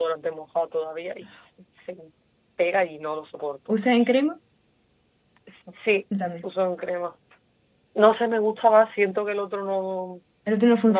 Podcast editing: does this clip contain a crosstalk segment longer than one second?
No

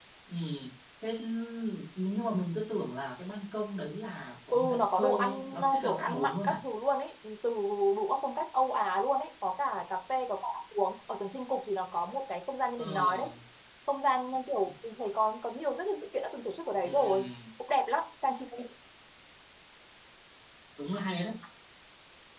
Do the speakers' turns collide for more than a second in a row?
Yes, from 4.5 s

